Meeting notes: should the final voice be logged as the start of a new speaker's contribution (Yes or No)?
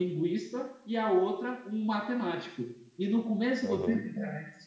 No